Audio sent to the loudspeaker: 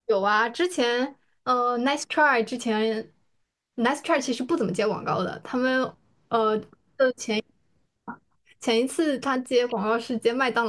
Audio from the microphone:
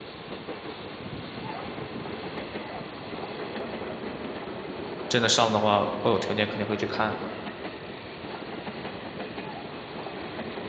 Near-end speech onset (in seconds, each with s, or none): 5.1 s